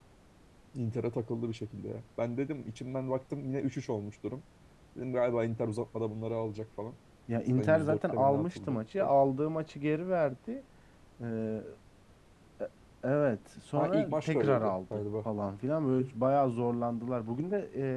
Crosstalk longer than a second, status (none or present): present